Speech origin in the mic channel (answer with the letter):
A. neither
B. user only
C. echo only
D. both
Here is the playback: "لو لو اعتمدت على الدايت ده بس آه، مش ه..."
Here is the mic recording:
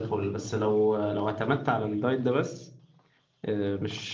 C